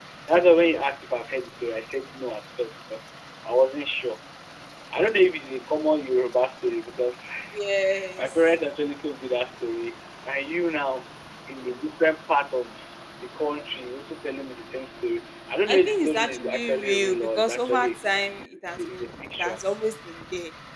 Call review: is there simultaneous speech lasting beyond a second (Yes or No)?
Yes